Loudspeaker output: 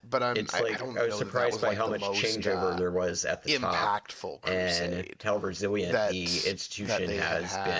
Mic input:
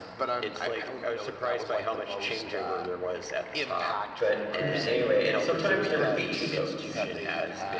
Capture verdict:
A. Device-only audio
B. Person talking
B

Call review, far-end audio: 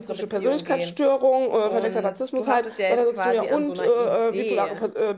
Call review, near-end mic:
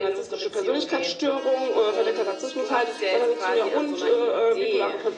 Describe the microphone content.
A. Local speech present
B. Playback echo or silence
B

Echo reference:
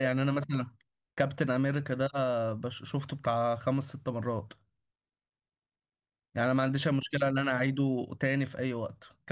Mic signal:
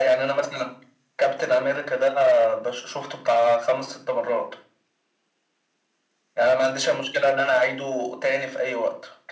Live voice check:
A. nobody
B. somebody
A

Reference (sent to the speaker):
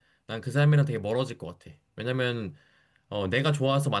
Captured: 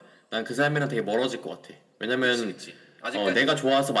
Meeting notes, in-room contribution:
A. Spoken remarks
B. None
A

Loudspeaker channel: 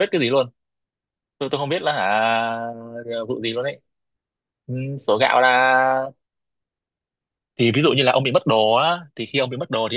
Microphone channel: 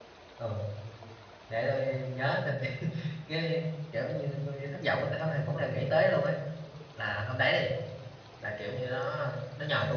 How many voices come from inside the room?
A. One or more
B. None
A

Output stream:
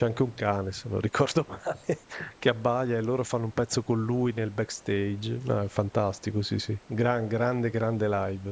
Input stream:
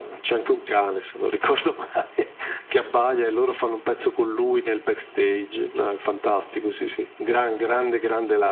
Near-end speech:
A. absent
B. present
A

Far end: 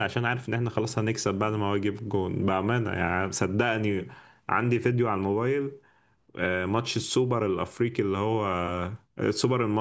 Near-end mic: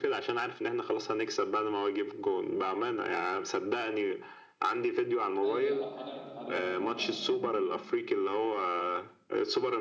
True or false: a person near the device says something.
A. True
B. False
A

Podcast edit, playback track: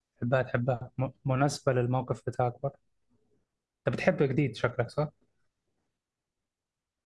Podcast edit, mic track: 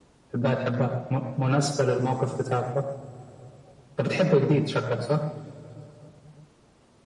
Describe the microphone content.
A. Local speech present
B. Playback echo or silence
B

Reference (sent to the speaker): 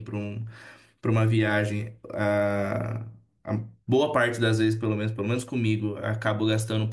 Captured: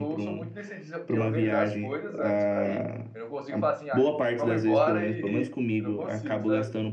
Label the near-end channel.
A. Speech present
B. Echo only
A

